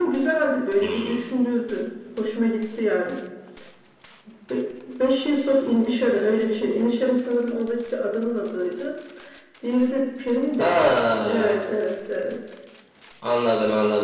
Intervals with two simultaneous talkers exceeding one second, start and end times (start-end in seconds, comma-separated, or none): none